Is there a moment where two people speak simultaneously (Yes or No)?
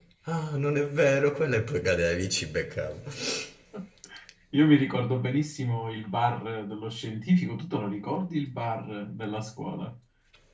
No